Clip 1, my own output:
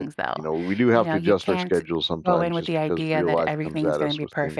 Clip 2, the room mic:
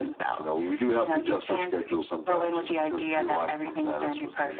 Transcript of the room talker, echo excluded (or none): none